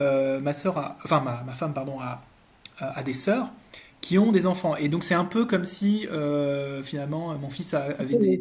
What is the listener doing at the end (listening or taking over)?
taking over